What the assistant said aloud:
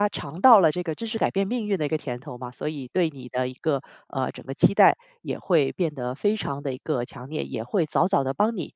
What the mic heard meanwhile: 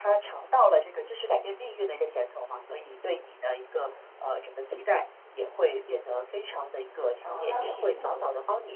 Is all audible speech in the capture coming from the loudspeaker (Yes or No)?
No